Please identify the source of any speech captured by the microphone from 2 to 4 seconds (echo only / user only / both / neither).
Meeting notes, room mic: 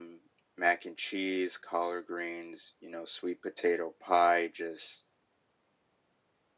echo only